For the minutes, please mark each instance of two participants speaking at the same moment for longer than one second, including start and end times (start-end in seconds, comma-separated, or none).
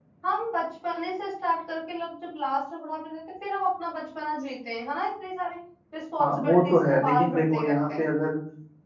6.2-8.0